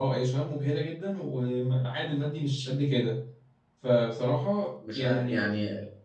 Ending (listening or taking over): taking over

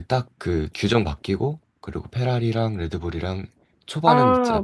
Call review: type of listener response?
taking over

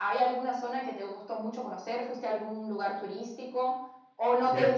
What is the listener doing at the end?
listening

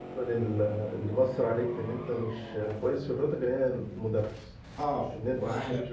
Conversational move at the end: taking over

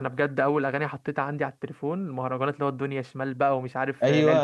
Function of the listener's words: taking over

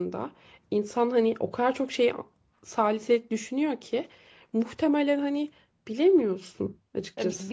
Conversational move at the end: taking over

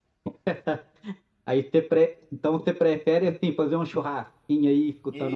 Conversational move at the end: taking over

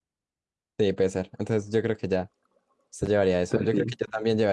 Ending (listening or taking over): listening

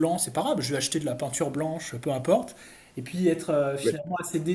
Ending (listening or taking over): listening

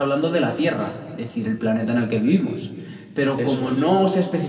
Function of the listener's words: listening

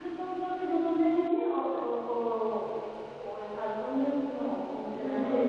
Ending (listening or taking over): taking over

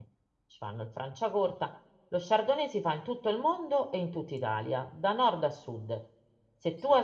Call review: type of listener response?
listening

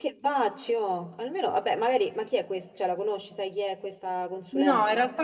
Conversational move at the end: taking over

